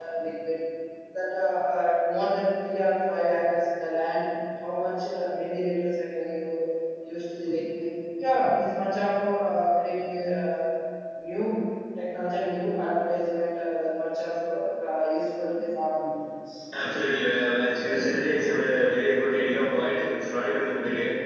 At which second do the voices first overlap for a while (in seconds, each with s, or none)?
none